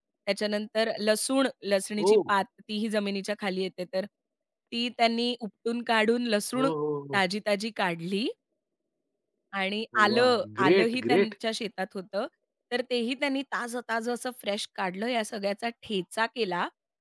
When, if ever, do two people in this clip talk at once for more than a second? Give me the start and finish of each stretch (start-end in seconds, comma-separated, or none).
10.1-11.3